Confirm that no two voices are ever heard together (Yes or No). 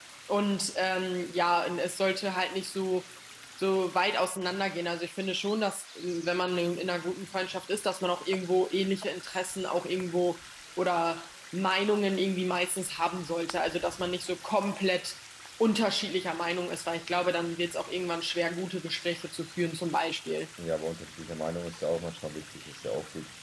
Yes